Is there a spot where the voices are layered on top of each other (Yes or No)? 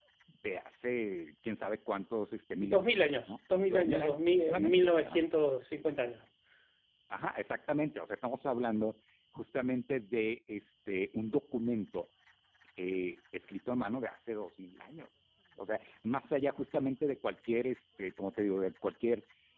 Yes